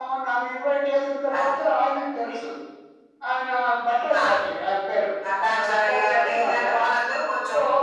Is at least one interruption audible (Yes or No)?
Yes